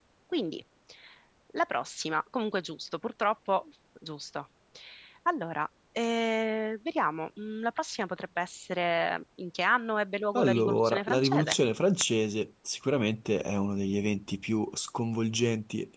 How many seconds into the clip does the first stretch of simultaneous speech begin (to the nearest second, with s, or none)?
10 s